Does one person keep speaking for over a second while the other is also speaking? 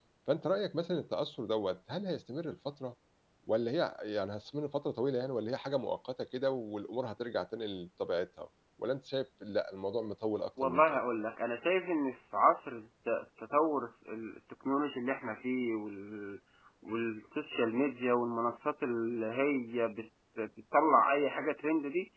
No

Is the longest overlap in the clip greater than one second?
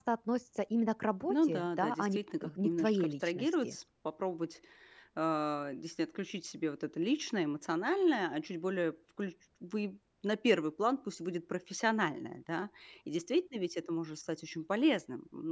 Yes, from 1.3 s

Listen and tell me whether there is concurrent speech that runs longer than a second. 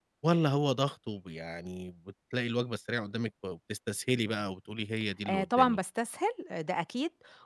No

